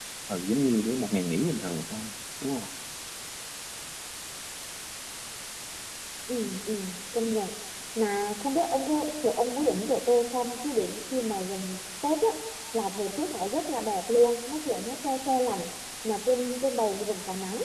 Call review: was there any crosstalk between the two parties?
No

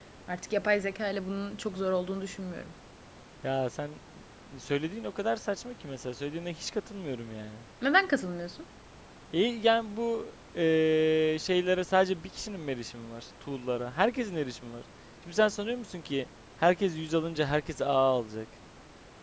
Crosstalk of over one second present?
No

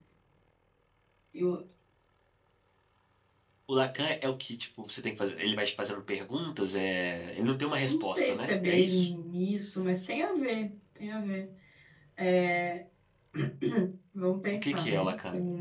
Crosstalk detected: Yes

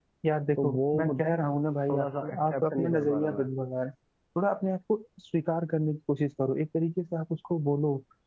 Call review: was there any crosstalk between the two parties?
Yes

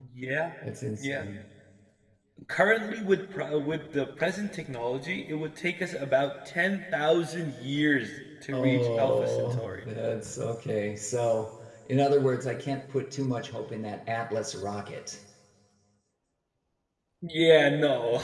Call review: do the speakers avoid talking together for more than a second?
No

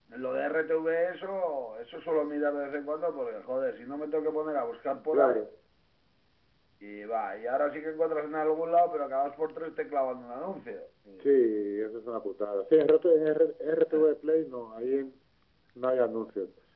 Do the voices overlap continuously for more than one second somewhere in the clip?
No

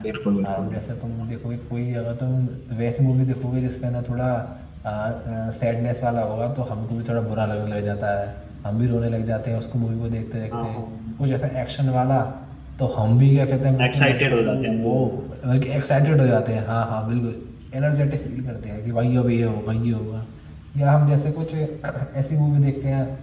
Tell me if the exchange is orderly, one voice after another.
No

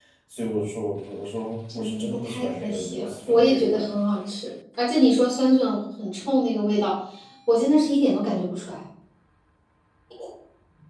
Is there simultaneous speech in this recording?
Yes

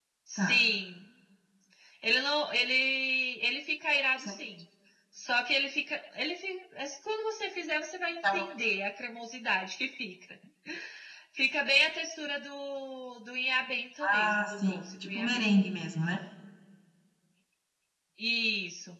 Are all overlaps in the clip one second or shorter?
No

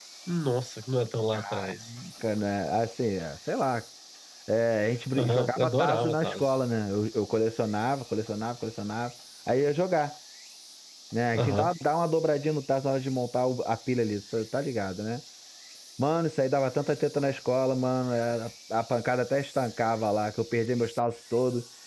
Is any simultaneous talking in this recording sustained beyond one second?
Yes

